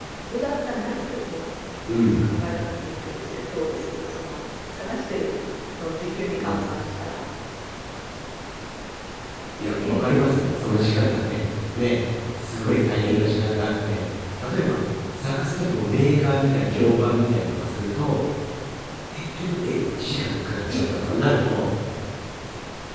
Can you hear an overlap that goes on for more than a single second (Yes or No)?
No